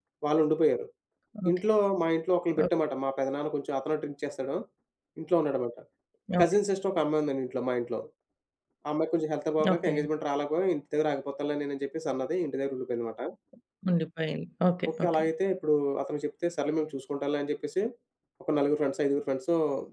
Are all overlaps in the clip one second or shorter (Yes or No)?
Yes